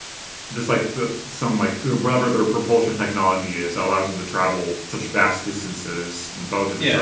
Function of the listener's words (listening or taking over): taking over